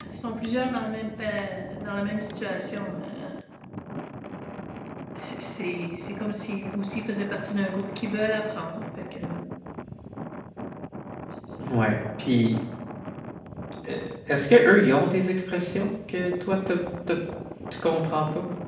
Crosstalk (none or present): none